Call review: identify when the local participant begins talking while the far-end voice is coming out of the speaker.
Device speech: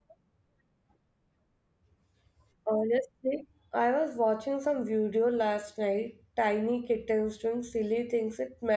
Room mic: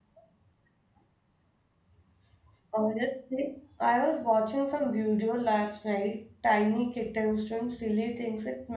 none

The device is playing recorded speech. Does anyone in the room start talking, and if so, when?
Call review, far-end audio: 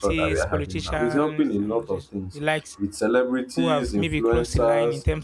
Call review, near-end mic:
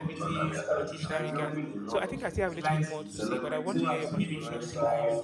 1.0 s

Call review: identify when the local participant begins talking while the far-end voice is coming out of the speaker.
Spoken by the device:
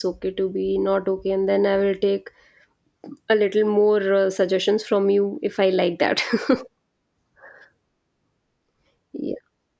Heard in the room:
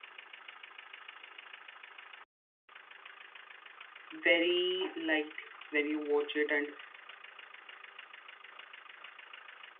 4.1 s

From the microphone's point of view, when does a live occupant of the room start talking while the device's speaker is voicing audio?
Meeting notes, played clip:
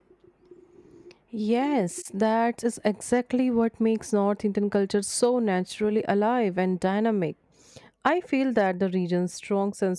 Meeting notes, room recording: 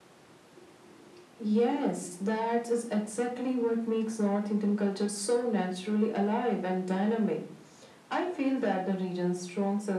none

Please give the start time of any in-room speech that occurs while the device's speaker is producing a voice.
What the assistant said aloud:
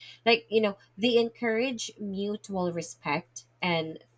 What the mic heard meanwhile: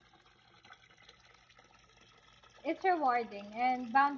2.6 s

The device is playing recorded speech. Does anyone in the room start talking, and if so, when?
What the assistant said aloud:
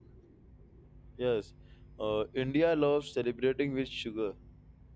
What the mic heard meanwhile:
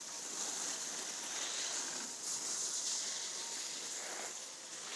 none

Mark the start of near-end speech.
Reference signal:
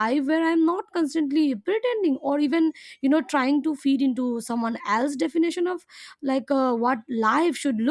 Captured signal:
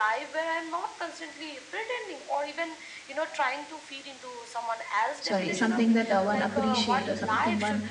5.2 s

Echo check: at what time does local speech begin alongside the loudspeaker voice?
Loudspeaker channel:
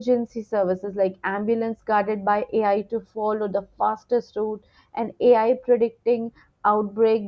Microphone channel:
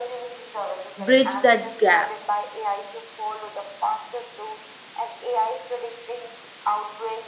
1.0 s

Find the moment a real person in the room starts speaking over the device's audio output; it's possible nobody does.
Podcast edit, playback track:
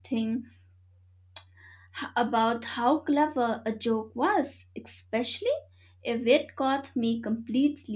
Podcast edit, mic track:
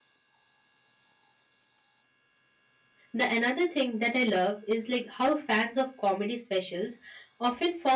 3.1 s

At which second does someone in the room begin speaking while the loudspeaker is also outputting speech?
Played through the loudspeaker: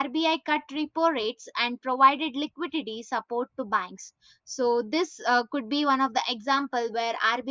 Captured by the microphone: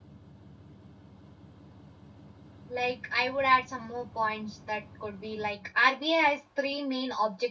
2.7 s

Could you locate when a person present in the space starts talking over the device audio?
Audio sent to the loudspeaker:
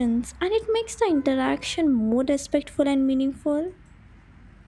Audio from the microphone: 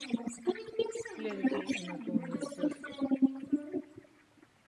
1.1 s

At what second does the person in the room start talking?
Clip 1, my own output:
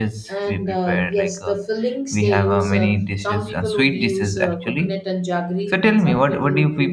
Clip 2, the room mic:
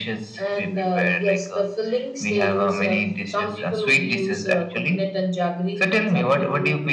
none

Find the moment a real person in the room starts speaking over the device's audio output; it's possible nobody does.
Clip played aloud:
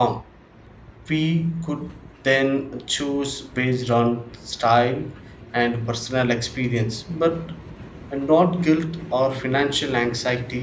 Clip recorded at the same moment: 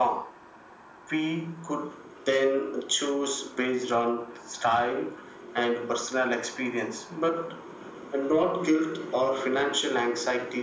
none

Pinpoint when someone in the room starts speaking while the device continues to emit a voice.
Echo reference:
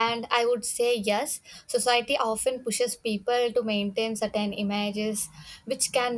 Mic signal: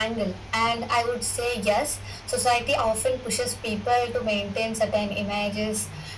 none

